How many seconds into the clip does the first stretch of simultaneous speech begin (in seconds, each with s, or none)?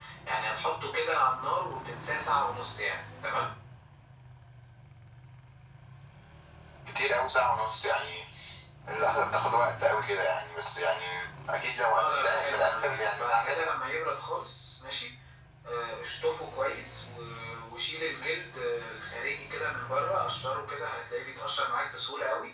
11.9 s